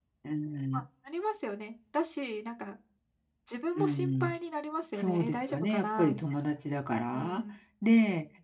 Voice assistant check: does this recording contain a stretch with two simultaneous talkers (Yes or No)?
Yes